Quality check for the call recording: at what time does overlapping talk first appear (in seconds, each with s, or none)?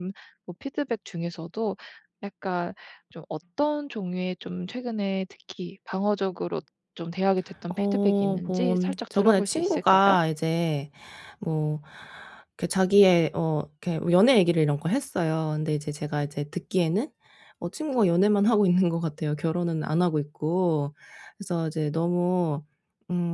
7.8 s